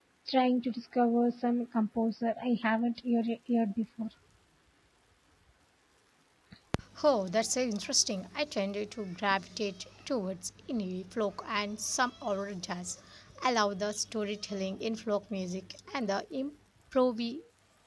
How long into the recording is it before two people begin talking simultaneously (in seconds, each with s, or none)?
none